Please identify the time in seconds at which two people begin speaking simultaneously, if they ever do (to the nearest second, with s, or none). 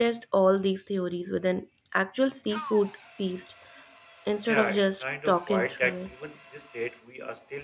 4 s